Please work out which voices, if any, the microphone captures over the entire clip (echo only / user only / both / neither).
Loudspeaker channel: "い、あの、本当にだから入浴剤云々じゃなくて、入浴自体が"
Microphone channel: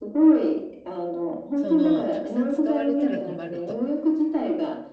both